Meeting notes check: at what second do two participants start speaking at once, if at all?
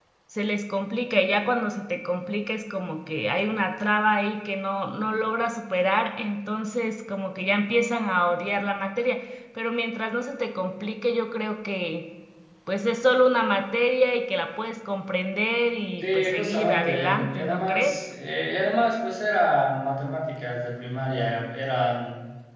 16.0 s

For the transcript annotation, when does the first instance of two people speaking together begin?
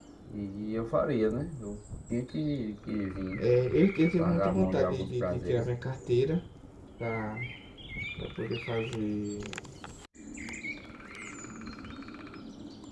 4.2 s

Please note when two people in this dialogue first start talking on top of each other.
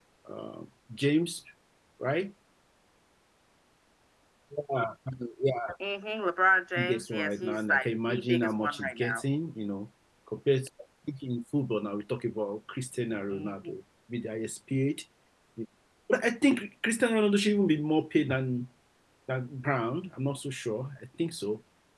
6.8 s

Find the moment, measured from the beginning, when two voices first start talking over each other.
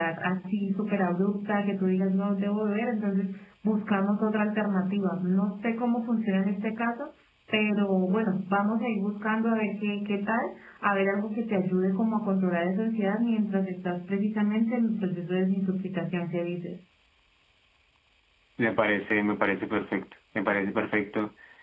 none

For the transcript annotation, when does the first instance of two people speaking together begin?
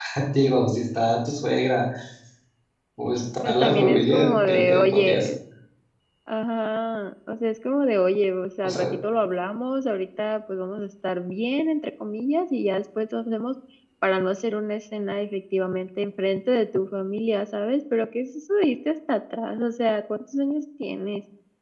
3.5 s

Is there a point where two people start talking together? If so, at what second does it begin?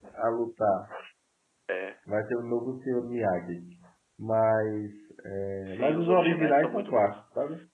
5.7 s

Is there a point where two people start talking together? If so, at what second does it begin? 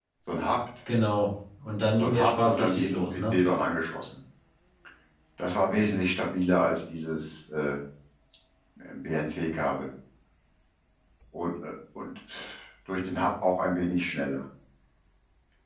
1.9 s

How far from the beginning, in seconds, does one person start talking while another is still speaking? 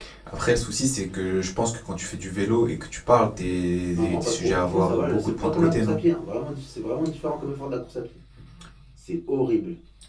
4.1 s

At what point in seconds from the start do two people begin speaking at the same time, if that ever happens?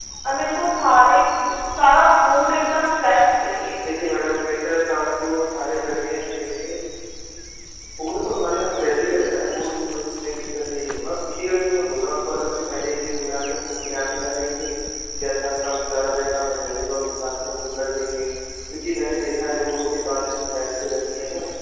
none

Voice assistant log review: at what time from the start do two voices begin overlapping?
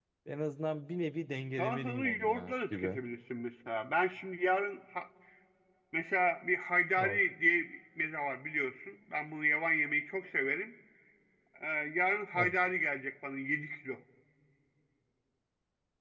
1.6 s

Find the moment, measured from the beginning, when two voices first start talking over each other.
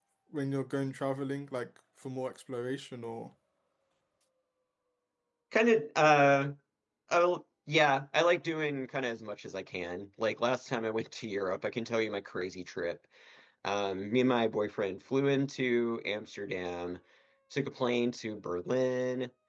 none

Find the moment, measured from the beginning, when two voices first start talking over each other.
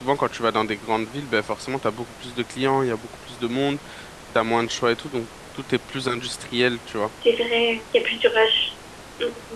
none

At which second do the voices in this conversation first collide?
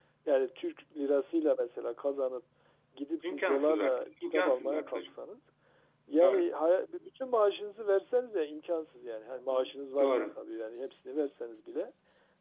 3.2 s

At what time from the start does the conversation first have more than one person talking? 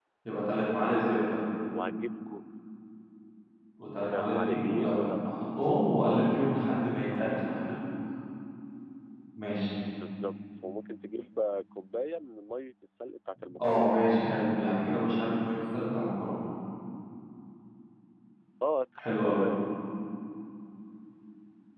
4.0 s

